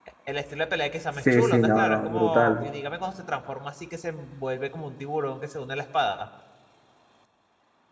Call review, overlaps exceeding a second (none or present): present